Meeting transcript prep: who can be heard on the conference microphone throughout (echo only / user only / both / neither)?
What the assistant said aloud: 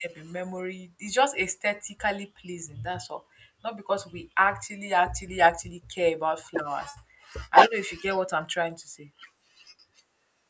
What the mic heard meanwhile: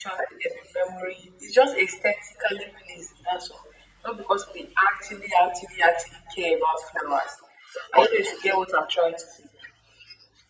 echo only